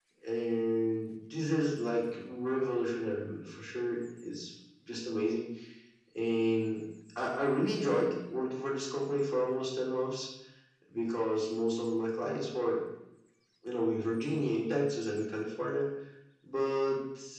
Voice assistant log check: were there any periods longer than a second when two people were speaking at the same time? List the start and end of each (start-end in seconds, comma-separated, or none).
none